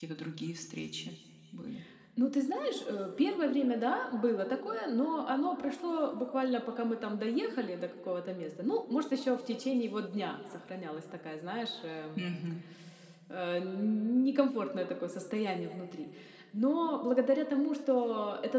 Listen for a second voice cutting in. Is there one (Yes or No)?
No